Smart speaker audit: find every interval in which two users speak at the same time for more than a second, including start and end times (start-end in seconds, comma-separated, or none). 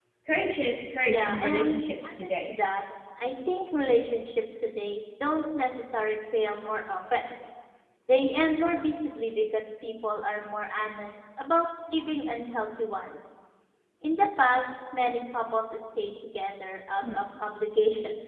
1.1-2.5